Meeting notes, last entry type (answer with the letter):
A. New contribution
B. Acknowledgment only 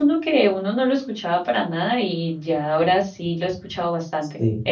A